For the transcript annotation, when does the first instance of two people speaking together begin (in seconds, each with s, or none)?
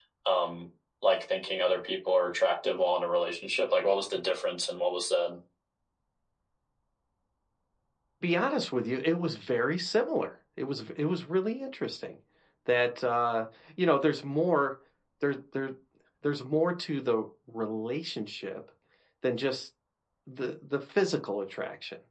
none